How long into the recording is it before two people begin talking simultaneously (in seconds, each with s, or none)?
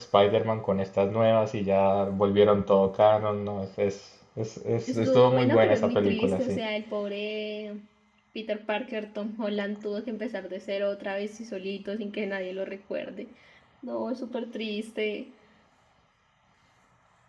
4.9 s